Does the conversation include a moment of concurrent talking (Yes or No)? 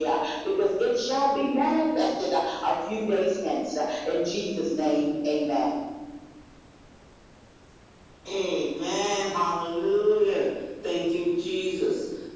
No